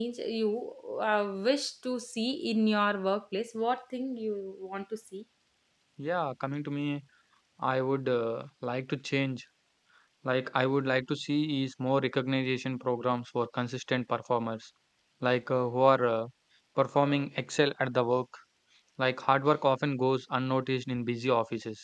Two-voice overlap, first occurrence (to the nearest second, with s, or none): none